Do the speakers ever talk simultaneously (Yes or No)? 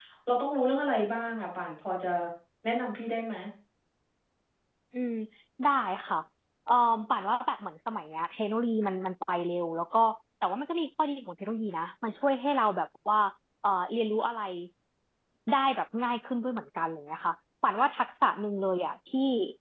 No